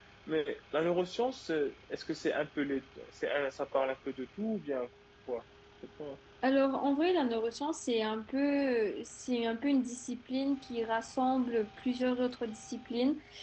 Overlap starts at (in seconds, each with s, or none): none